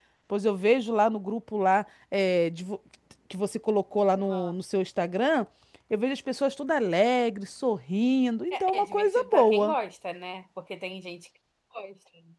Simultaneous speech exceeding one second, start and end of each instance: 8.5-9.8

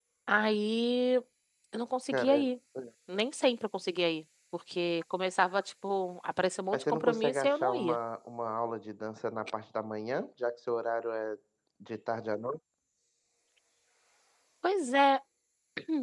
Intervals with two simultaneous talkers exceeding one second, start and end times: 6.7-8.0

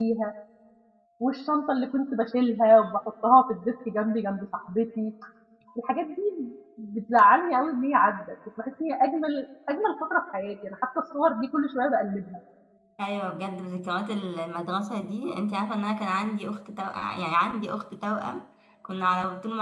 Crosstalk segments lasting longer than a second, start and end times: none

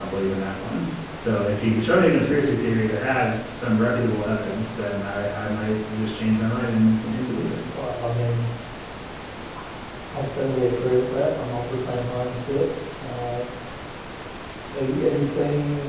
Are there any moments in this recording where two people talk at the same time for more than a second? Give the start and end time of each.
none

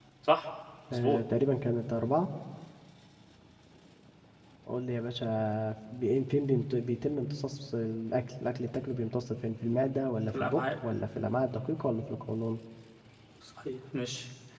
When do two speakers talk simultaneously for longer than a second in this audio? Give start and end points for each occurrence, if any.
none

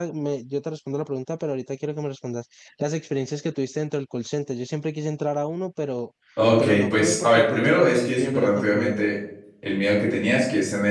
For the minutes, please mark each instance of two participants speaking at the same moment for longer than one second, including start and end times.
6.6-9.0

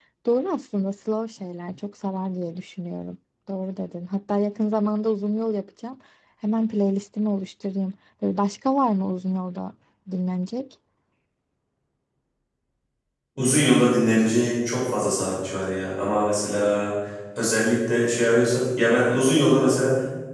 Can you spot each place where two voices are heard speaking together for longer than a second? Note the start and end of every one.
none

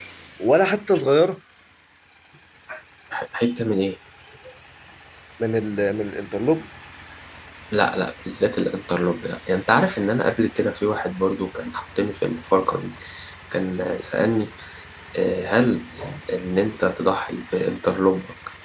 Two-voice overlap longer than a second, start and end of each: none

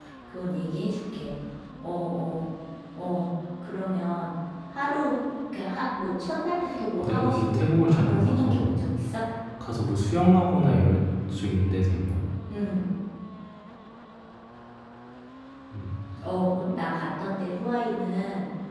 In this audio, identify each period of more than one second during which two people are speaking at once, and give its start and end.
7.0-8.7

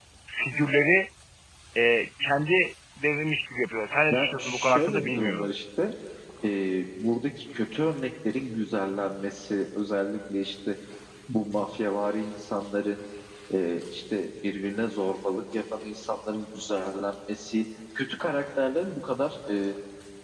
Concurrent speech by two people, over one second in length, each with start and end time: 4.1-5.5

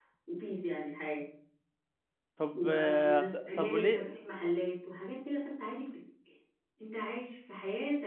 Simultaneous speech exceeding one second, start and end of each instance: 2.5-4.0

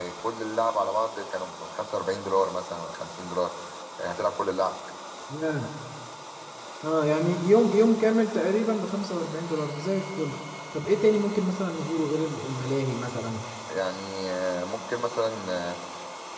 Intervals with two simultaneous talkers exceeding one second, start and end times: none

